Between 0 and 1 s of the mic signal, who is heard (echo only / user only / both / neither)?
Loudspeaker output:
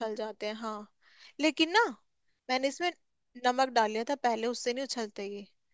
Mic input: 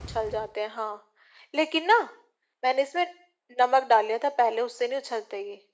echo only